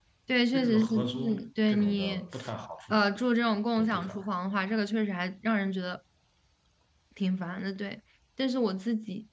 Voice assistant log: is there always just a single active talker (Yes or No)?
No